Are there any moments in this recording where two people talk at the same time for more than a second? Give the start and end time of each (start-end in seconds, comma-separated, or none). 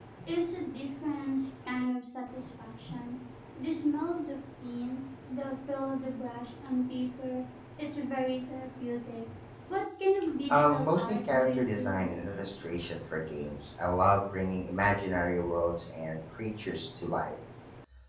10.5-12.0